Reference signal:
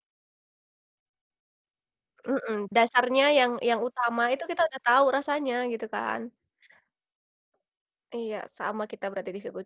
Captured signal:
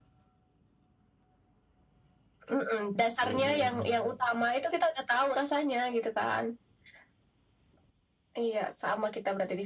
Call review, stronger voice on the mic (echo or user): echo